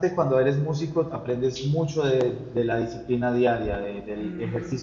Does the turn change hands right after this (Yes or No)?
No